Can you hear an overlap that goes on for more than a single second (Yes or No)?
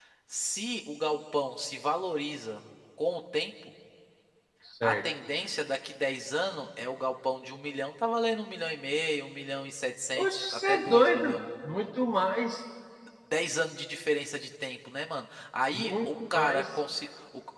Yes